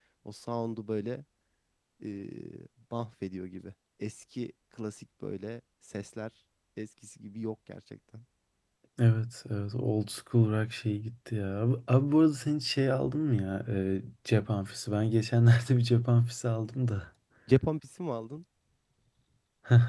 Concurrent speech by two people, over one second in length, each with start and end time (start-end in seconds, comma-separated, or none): none